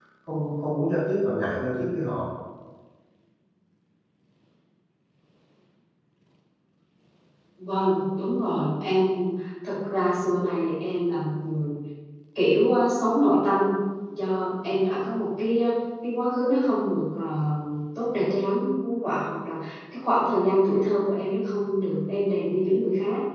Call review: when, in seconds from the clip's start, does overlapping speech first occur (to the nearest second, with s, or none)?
none